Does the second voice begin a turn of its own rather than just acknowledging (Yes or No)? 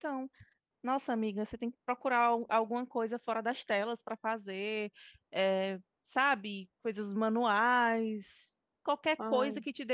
No